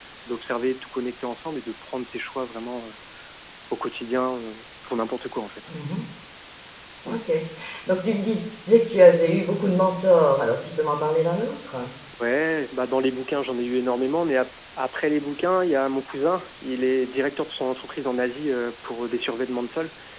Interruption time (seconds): none

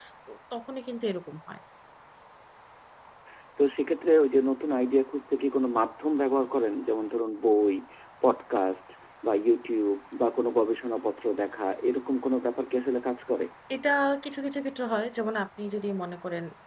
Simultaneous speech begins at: none

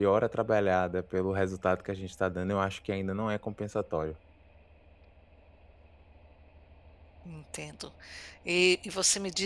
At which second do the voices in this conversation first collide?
none

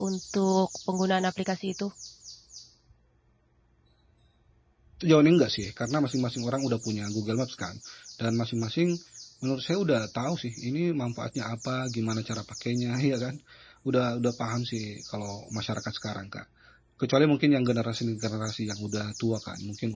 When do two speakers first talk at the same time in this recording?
none

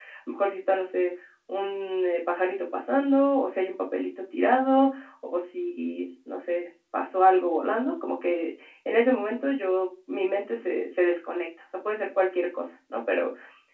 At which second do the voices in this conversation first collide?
none

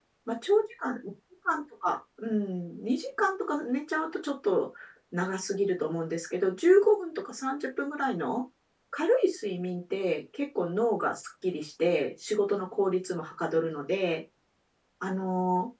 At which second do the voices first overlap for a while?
none

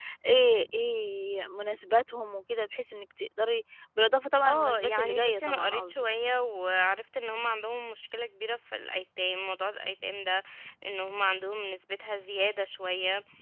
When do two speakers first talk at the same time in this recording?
4.4 s

